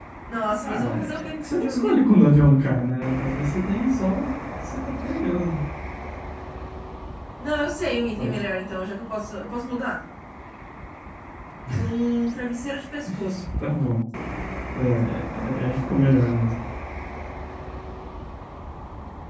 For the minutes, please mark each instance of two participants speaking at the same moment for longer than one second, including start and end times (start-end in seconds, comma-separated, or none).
0.6-2.1